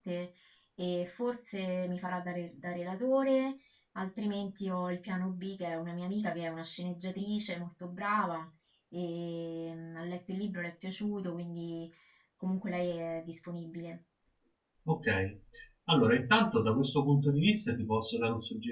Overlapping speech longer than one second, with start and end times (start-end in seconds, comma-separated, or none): none